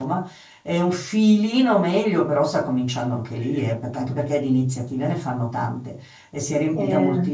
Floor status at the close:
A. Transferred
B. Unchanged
B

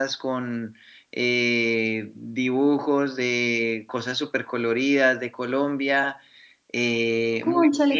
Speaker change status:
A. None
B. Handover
B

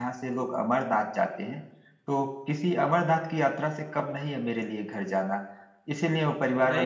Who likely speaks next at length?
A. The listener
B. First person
B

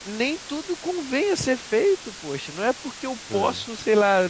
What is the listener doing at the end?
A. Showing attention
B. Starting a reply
A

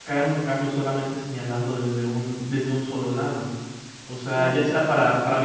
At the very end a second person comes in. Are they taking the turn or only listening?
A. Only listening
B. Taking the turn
A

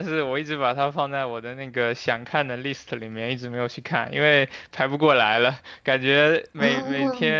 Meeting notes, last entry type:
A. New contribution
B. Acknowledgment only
B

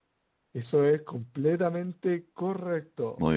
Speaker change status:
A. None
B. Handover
A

